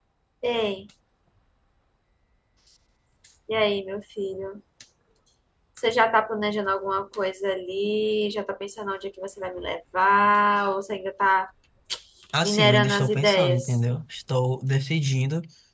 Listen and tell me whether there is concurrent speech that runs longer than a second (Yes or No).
Yes